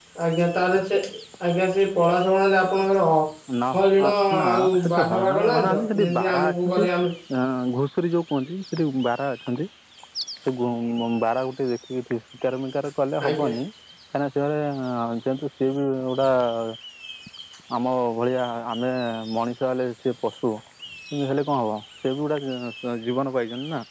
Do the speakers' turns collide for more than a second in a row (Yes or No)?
Yes